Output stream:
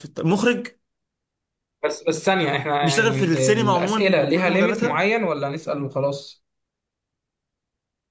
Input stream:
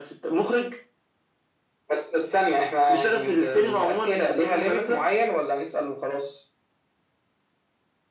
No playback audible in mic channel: No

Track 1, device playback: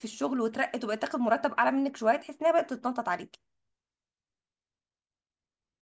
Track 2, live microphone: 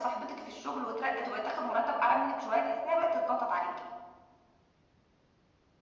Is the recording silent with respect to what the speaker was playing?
No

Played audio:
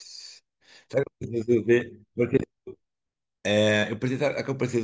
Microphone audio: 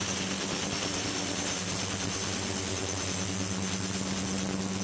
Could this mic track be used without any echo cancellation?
Yes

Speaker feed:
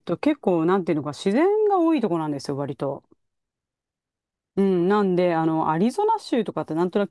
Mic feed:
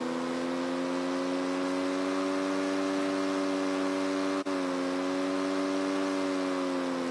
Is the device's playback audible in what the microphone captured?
No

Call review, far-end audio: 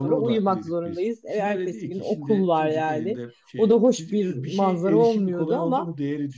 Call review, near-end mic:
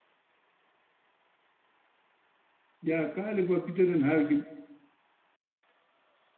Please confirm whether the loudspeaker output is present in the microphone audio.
No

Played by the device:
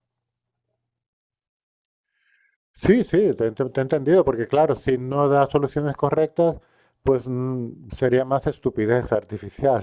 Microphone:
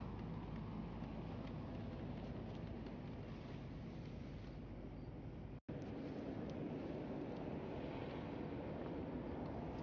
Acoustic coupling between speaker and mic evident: No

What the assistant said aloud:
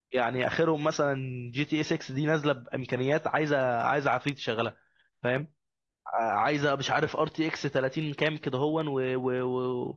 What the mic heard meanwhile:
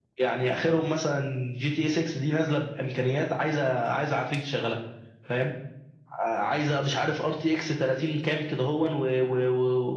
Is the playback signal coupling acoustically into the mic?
Yes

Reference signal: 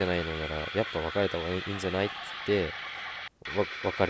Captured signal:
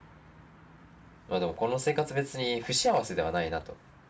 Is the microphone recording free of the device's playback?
Yes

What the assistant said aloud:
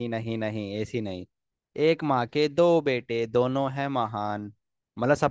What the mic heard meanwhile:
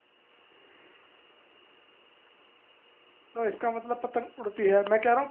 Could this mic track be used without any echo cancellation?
Yes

